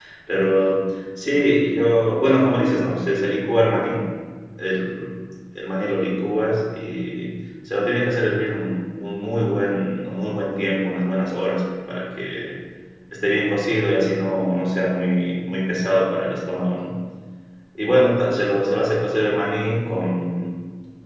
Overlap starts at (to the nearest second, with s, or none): none